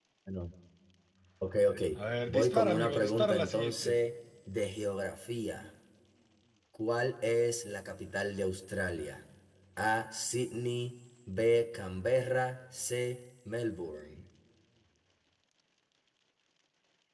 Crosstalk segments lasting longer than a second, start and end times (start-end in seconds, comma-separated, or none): 2.3-3.9